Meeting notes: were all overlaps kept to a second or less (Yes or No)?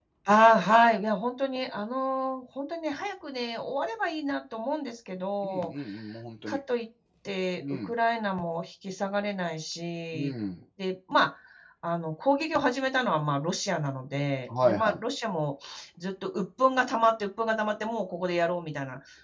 Yes